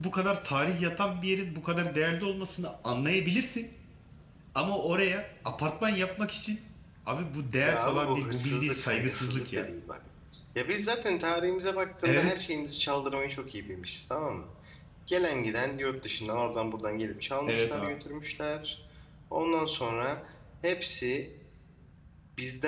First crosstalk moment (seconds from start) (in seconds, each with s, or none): 7.6 s